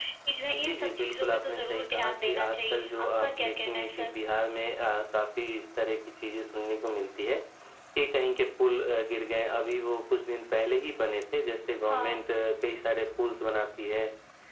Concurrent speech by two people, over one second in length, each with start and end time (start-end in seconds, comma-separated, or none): 0.5-4.1